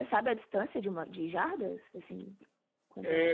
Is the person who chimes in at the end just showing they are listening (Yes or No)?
No